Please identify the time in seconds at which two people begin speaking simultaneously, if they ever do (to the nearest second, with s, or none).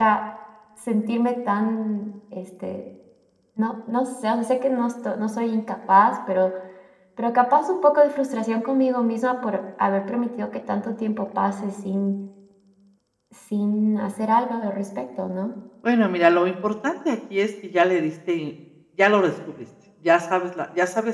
none